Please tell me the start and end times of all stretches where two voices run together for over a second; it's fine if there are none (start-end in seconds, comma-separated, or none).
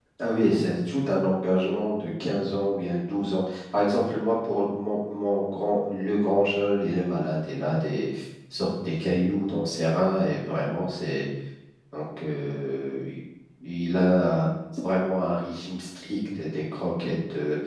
none